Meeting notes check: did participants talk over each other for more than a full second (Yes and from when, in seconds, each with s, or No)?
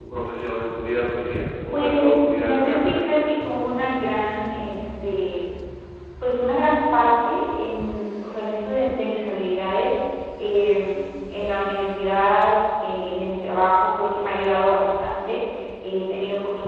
Yes, from 1.7 s